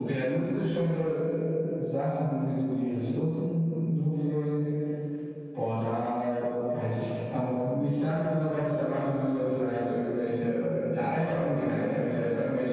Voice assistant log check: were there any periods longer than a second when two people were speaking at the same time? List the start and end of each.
none

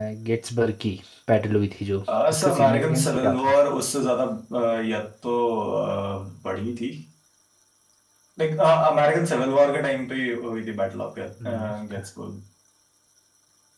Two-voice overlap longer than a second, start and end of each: 2.3-3.5

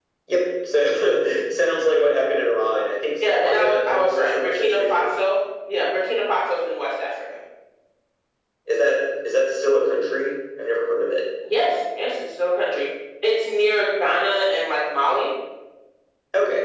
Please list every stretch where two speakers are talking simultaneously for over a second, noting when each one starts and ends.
3.2-5.1

